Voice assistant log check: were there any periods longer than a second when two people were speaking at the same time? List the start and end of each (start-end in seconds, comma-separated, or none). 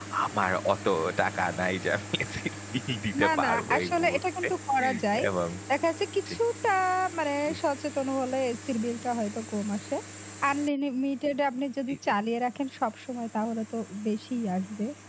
3.2-4.5